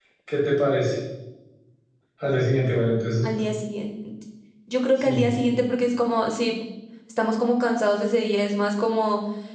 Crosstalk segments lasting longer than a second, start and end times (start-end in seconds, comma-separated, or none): none